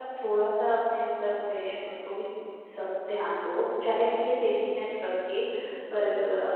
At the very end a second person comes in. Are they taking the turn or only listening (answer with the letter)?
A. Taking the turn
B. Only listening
B